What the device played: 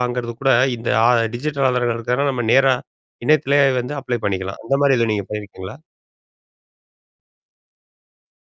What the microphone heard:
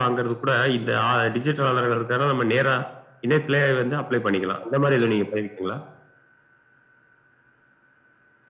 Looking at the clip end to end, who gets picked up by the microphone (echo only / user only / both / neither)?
echo only